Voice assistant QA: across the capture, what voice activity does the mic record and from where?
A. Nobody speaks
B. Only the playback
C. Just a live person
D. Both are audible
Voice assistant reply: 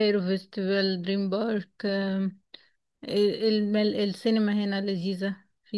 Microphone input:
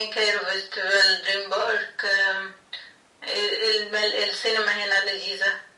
B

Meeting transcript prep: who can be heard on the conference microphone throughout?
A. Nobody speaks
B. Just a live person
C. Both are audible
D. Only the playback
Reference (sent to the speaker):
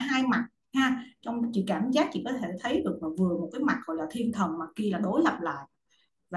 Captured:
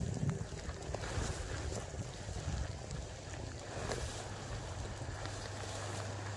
A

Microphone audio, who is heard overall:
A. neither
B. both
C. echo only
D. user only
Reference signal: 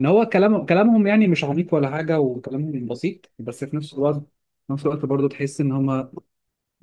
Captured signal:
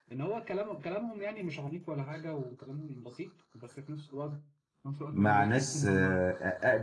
B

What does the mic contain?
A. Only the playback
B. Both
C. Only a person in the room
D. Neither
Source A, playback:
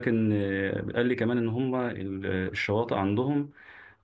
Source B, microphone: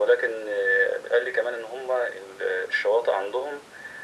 A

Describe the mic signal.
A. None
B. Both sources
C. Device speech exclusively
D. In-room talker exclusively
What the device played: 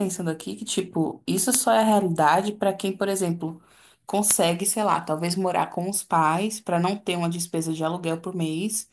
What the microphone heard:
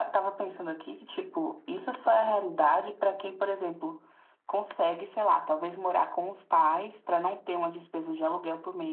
C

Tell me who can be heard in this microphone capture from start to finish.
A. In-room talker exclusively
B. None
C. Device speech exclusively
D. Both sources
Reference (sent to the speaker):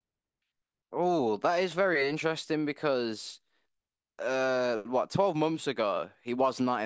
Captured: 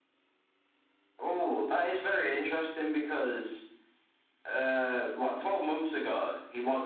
C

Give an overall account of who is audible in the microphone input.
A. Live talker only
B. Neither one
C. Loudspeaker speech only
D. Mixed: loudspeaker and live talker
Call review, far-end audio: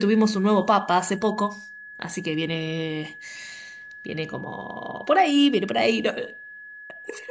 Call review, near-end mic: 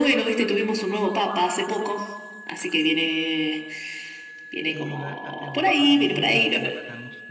D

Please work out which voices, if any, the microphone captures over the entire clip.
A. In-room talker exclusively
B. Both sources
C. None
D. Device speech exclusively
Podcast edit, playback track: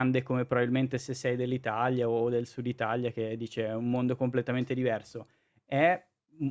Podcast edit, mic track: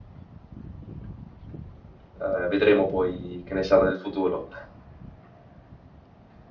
A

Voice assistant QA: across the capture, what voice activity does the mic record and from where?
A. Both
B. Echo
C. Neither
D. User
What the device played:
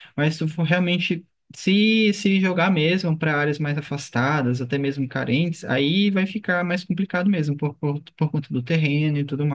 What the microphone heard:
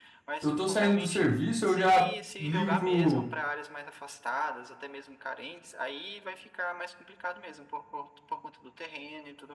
A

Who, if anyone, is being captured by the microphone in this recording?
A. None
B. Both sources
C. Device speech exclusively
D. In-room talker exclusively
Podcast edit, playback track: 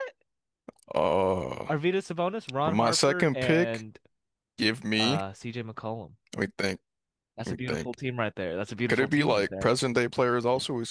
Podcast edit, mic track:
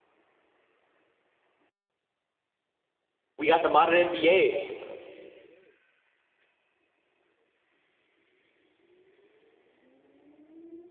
D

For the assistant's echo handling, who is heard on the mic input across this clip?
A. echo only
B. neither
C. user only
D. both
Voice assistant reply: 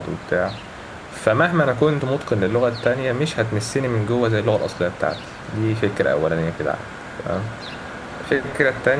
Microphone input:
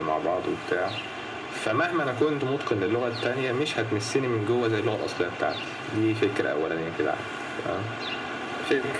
A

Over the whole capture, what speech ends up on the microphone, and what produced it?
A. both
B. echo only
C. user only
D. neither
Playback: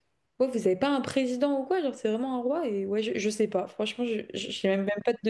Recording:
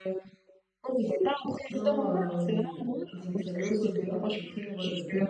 A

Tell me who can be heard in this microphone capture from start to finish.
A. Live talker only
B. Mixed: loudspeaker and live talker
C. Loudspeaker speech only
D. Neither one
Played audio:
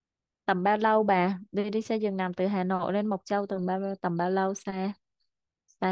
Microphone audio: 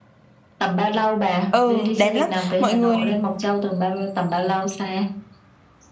B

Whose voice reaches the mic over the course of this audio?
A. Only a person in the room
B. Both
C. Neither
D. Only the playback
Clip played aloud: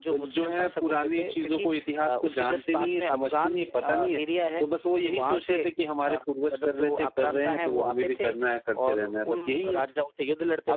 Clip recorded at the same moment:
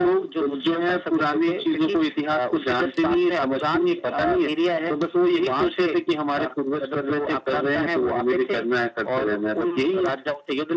D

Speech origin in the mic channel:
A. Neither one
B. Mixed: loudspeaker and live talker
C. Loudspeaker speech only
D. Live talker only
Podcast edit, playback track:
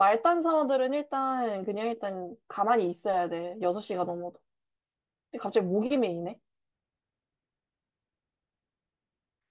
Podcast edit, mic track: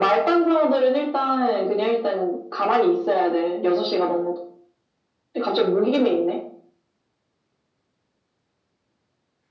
C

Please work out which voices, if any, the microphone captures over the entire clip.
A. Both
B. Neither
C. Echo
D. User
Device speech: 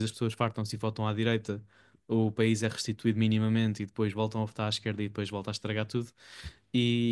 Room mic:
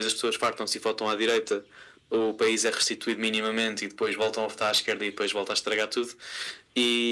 C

